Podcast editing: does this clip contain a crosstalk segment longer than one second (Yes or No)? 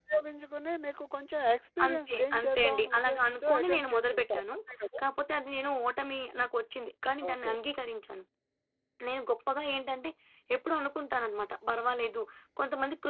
Yes